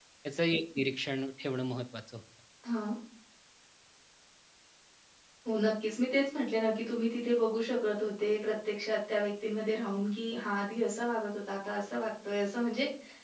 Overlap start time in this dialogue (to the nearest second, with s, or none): none